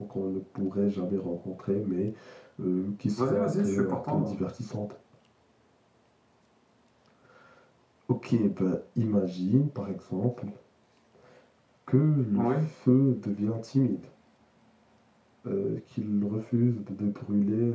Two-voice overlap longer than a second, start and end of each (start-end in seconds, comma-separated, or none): 3.2-4.4